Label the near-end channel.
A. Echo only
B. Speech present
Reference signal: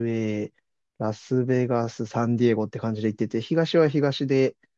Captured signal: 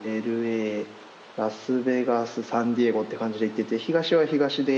A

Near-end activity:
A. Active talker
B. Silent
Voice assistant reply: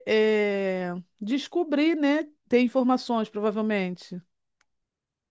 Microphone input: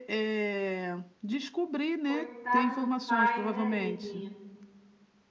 A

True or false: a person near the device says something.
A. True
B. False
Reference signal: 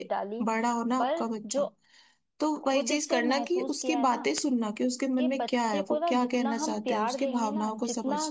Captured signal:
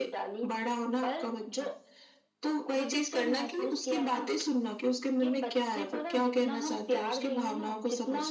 B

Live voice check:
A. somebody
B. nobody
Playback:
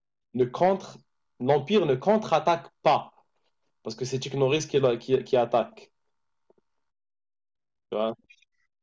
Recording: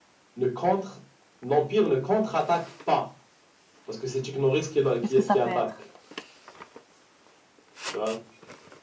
A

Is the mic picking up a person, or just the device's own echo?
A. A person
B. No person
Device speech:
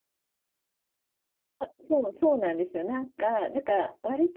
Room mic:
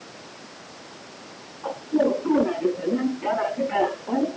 B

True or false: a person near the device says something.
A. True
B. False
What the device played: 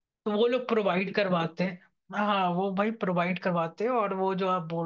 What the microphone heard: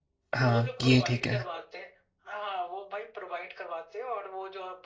A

